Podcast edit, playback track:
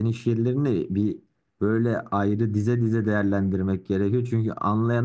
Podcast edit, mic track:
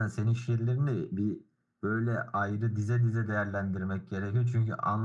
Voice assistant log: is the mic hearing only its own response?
Yes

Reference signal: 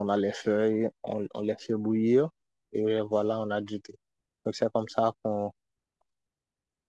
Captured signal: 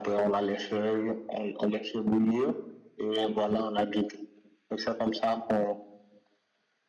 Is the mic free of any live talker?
Yes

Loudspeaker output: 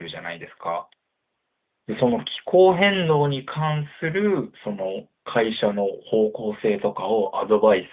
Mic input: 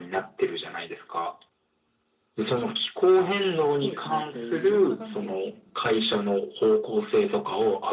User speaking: Yes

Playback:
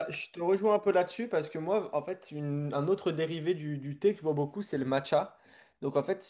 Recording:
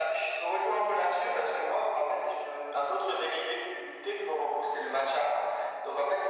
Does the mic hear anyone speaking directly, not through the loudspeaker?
No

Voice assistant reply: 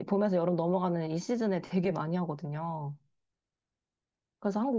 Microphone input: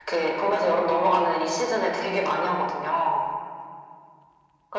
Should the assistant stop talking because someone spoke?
No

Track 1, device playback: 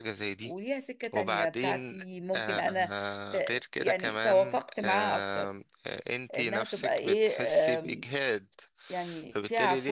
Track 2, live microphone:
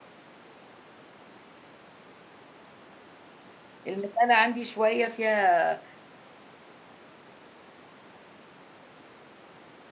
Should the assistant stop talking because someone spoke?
Yes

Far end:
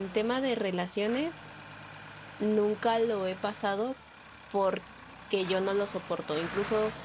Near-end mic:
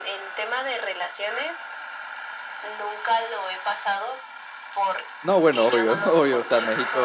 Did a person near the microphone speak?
Yes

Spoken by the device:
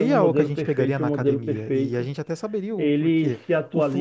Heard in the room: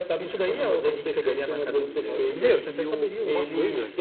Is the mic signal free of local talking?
No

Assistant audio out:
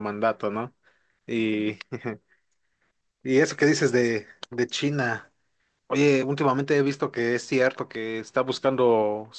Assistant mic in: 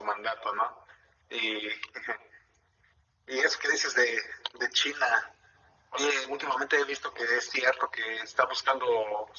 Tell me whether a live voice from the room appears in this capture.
No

